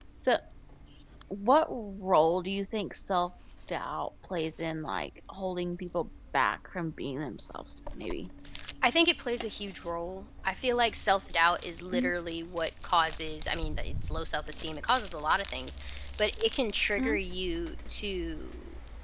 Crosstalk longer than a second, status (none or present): none